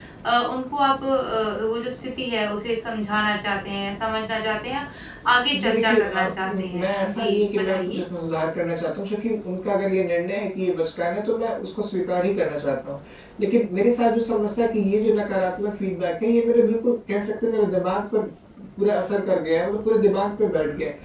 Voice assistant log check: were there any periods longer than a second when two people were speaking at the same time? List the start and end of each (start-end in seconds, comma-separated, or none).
5.6-8.0